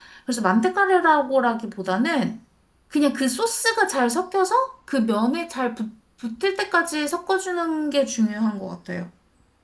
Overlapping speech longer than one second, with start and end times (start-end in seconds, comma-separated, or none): none